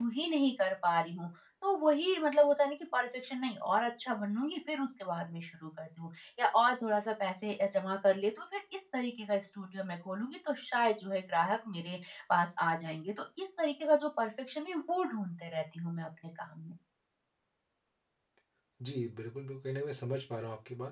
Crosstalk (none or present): none